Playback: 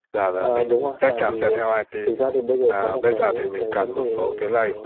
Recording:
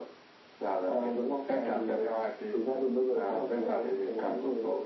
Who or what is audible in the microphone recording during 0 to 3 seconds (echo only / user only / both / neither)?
echo only